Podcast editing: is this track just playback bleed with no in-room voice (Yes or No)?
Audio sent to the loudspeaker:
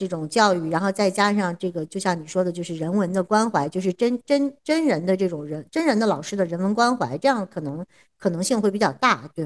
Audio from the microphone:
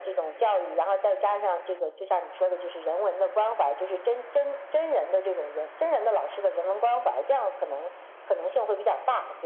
Yes